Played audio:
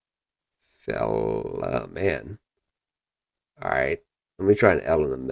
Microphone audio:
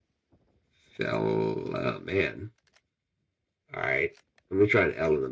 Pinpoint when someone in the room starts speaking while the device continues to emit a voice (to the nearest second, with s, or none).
none